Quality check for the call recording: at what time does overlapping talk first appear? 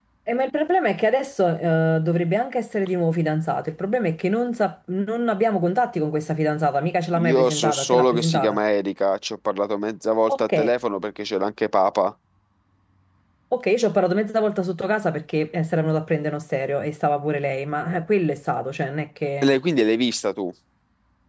7.2 s

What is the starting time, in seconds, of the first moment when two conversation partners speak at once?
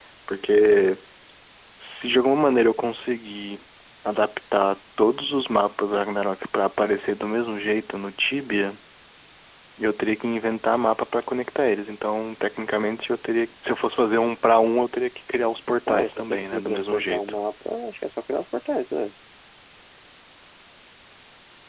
15.9 s

